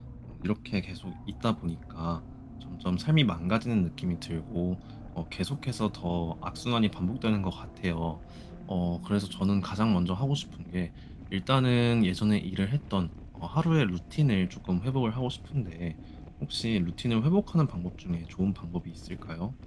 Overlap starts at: none

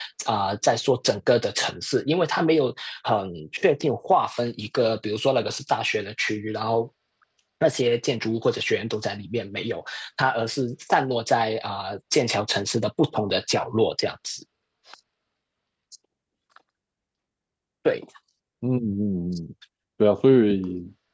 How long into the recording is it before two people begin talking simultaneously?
none

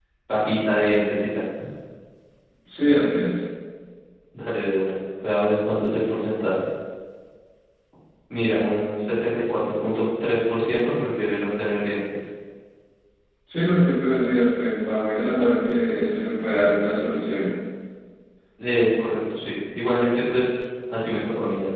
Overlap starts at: none

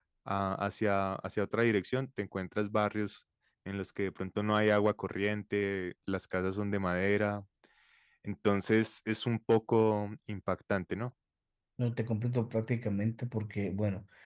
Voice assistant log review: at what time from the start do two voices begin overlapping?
none

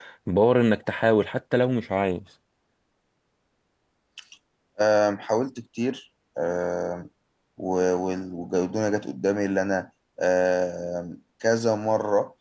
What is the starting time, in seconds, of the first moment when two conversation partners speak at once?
none

